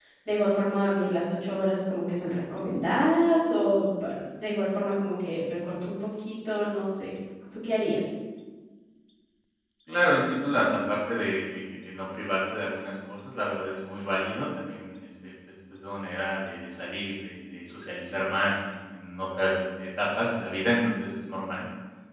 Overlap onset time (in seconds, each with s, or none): none